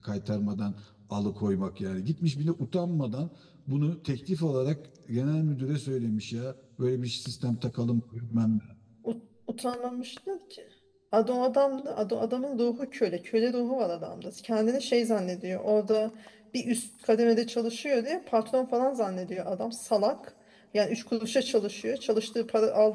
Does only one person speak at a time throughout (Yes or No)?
Yes